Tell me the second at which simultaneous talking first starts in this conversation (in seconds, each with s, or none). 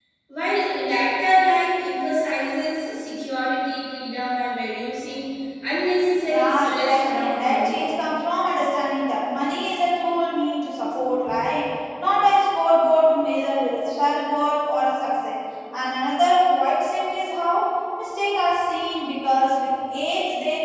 6.3 s